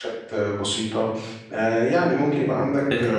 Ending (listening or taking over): listening